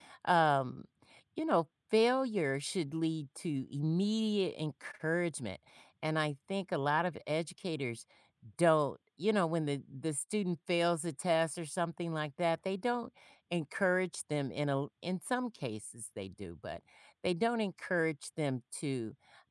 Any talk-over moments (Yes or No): No